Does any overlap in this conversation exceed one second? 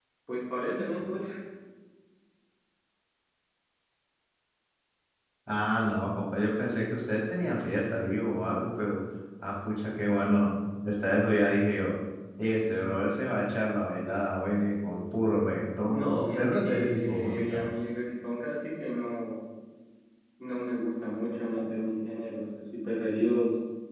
Yes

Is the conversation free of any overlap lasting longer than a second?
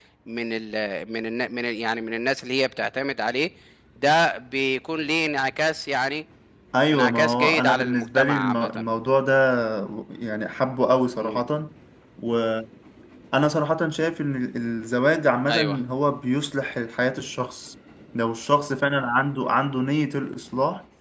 No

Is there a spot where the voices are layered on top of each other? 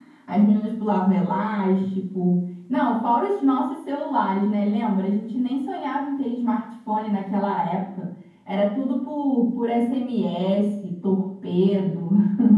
No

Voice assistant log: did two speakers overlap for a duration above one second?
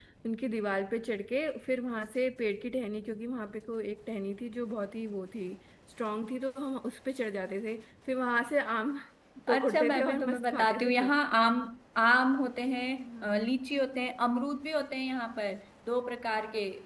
Yes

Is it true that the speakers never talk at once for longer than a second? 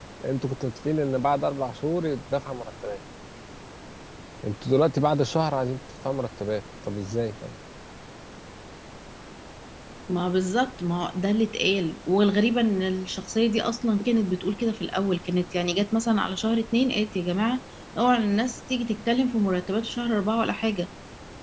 Yes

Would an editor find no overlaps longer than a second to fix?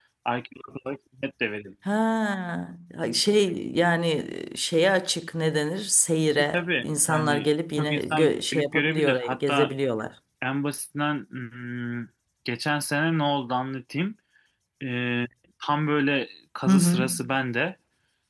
No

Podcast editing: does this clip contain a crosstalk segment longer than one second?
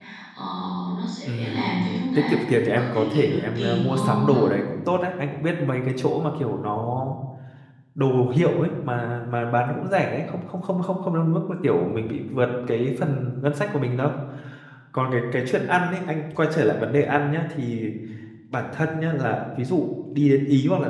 Yes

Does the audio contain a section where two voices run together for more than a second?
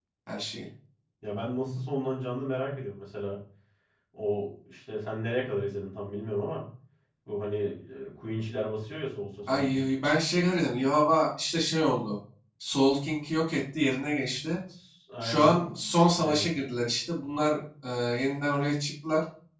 No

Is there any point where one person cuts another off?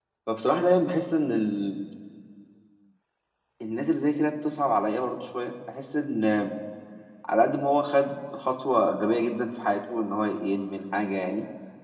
No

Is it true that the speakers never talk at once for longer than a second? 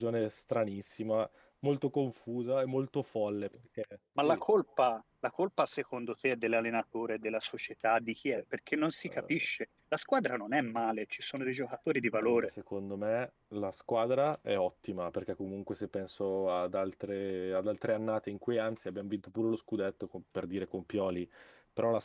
Yes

